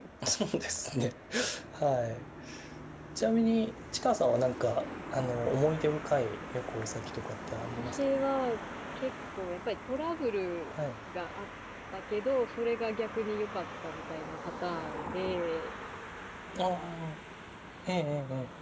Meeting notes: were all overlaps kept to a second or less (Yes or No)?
Yes